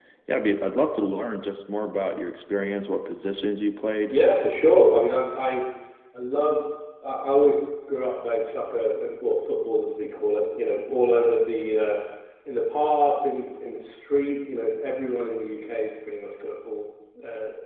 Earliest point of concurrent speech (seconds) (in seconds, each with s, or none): none